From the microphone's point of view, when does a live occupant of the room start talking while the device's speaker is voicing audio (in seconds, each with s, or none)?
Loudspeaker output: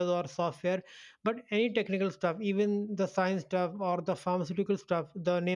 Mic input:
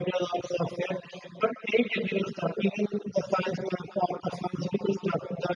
none